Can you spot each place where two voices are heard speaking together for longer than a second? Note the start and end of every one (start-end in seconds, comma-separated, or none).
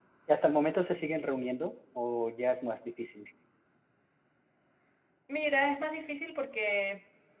none